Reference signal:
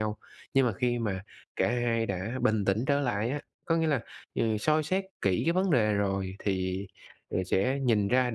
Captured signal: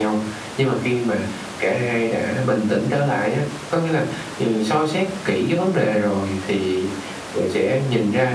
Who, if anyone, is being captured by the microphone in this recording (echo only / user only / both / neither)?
echo only